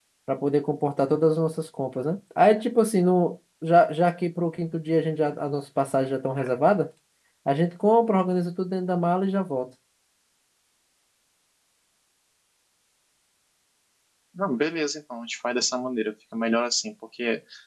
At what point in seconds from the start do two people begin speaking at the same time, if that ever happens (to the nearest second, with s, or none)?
none